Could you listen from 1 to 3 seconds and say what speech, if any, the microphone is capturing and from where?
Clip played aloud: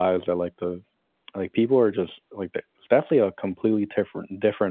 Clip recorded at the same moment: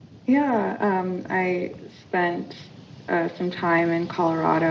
user only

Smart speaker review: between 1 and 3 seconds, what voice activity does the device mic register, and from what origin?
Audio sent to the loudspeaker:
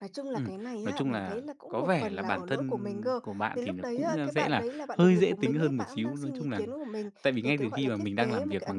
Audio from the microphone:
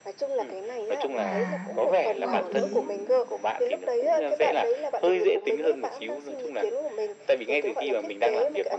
both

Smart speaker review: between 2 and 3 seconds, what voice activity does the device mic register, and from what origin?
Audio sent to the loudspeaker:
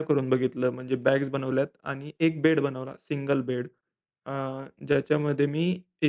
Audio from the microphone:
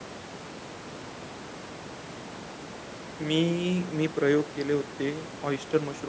neither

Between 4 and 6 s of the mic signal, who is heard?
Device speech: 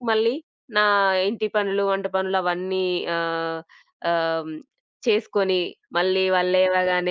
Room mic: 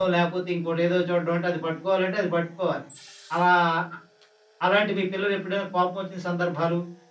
user only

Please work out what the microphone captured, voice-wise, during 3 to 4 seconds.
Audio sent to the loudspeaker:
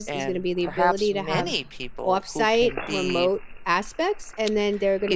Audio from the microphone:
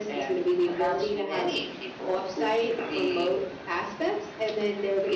echo only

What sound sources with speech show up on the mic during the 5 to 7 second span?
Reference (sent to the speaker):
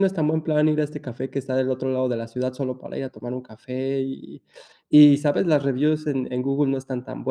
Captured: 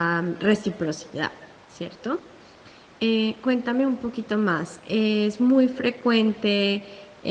user only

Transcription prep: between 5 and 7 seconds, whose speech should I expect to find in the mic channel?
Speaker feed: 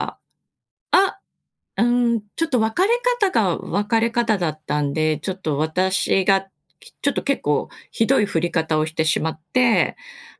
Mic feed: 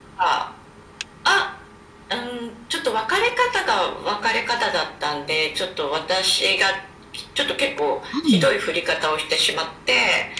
echo only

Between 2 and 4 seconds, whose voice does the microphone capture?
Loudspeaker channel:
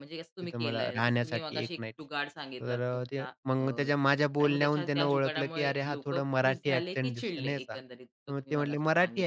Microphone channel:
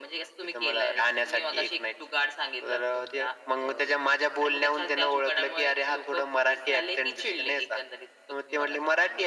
echo only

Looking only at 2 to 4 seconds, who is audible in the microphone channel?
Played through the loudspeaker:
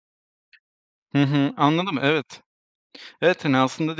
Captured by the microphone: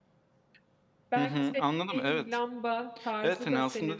both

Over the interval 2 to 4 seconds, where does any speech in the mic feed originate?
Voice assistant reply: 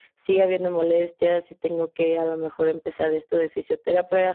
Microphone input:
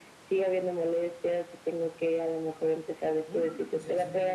both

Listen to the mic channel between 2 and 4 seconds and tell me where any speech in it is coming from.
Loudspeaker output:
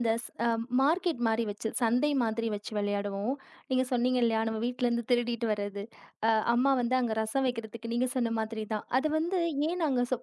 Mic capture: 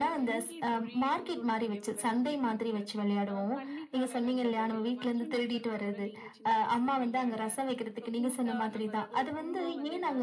both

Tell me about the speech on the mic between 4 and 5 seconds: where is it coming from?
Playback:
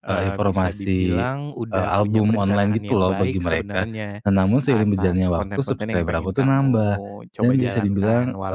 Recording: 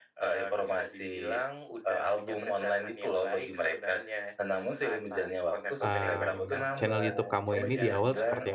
echo only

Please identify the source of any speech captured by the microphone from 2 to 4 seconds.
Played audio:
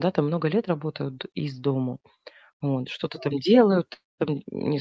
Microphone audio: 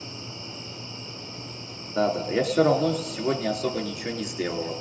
user only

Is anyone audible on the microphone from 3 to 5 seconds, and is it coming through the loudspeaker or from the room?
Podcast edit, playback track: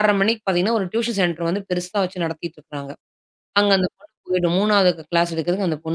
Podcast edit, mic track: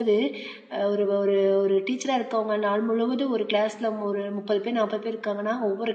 user only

